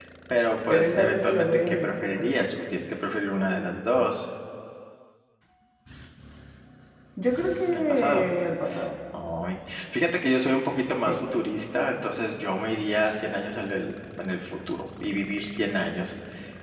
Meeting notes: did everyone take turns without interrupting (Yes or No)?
No